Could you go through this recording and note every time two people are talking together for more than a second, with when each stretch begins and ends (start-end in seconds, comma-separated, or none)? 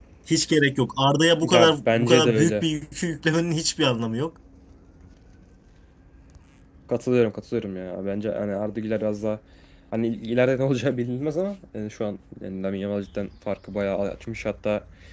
1.4-2.6